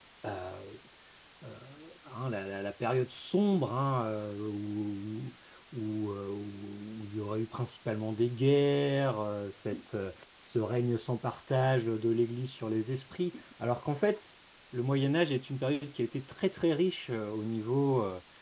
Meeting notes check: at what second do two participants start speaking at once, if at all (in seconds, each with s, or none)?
none